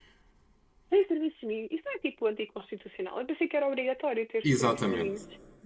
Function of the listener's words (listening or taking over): taking over